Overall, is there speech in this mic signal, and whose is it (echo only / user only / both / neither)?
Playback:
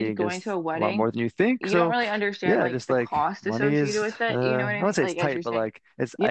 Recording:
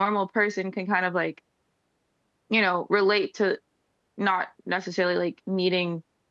user only